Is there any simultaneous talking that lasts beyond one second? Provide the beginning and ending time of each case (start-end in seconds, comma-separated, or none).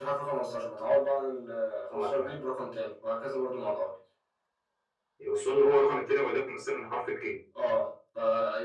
none